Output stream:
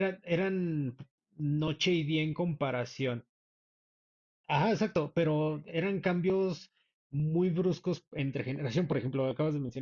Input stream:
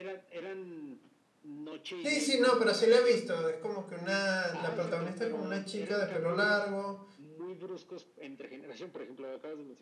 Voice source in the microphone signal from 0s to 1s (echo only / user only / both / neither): echo only